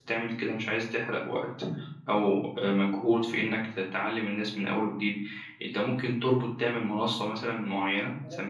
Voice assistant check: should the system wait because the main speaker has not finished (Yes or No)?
No